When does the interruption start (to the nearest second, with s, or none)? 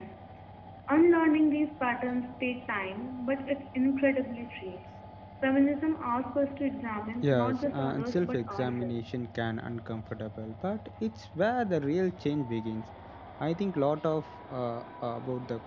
7 s